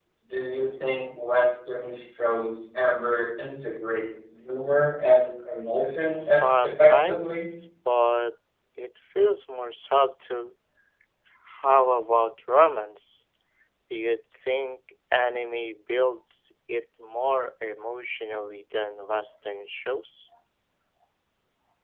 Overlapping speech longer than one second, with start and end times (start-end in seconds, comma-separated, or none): 6.0-7.5